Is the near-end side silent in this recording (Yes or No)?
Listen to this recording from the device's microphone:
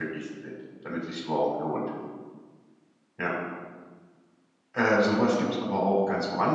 No